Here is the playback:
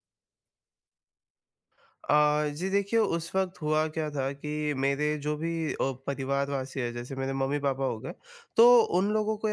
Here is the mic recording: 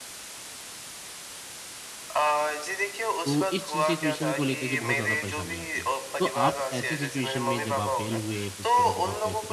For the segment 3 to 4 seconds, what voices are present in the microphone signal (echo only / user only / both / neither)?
both